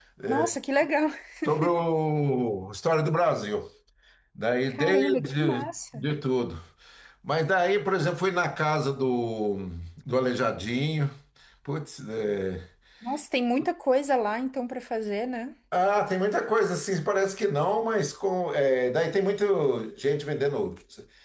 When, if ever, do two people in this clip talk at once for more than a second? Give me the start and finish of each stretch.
4.7-6.0

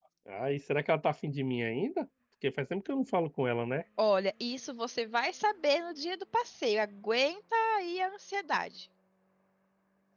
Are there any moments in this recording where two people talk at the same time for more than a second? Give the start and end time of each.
none

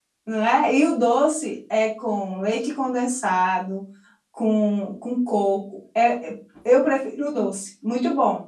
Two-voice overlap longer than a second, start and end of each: none

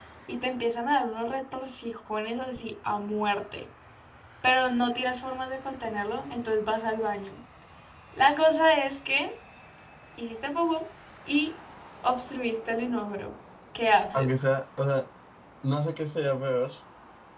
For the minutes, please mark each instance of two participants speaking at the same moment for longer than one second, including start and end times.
none

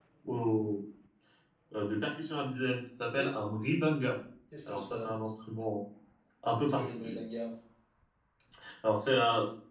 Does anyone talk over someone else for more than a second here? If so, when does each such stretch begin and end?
none

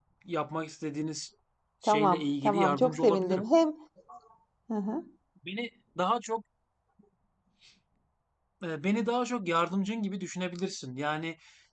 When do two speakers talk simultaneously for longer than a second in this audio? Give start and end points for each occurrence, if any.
1.9-3.5

